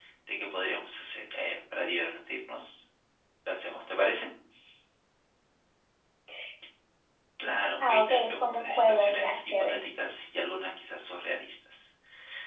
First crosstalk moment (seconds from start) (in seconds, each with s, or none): 7.8 s